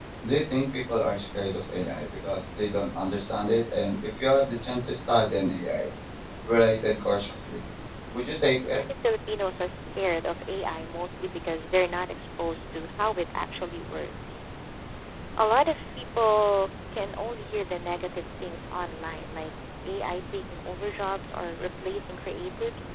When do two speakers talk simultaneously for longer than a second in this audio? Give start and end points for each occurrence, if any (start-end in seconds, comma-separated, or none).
none